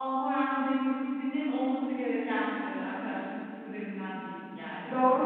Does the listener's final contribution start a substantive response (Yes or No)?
Yes